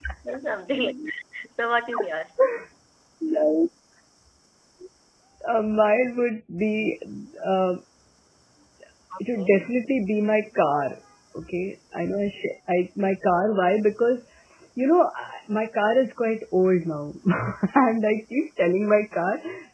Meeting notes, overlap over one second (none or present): none